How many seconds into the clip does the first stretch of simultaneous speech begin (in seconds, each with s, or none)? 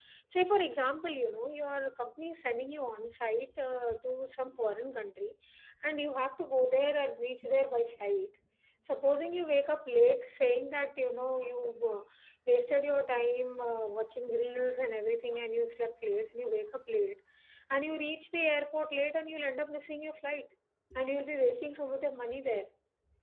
none